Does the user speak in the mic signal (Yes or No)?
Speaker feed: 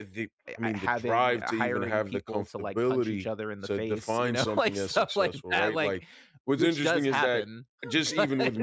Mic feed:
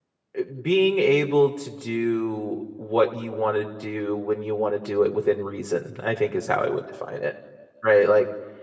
Yes